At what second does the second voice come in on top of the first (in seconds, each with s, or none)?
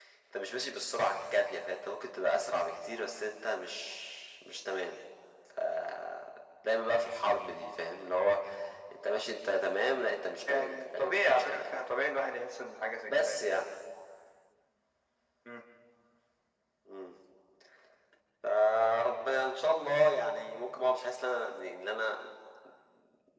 10.5 s